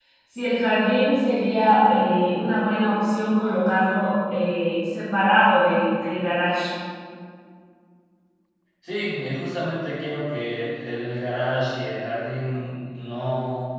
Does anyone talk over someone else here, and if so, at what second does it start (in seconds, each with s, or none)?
none